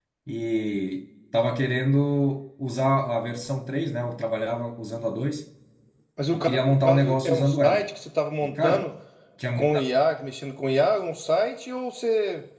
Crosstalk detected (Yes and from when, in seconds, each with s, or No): Yes, from 6.3 s